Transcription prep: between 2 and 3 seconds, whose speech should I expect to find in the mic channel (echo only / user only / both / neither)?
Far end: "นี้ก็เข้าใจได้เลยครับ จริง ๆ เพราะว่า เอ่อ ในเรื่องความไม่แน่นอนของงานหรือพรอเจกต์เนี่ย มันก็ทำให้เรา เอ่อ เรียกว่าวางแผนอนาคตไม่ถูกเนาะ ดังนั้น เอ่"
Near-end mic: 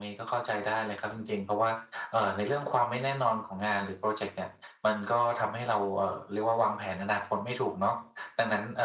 echo only